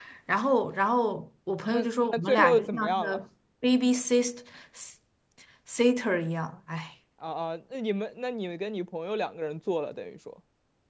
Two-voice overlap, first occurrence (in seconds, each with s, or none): 1.7 s